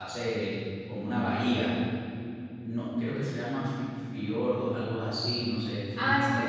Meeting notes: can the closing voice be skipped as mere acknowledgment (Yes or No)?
No